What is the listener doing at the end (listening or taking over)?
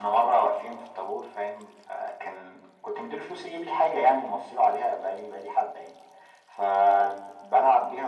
listening